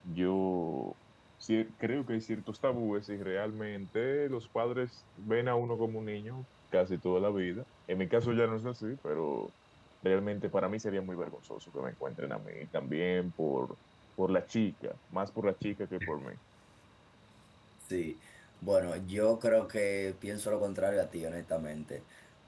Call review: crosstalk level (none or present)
none